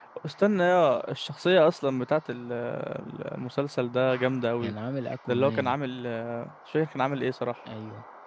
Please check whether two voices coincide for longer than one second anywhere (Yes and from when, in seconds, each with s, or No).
No